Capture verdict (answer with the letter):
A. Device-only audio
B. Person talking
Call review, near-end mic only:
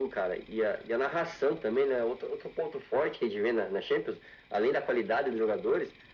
A